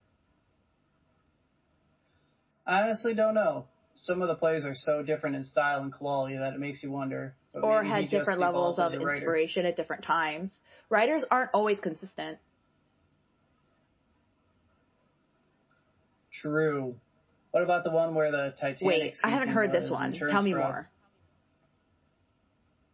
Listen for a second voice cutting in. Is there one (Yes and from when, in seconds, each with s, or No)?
Yes, from 7.6 s